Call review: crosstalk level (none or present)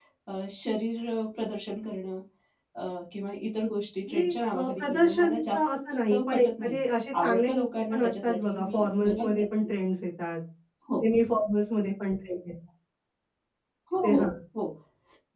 present